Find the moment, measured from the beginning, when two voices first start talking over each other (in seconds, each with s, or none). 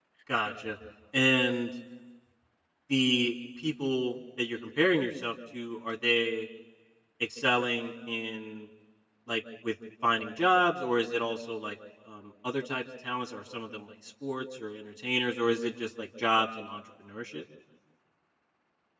none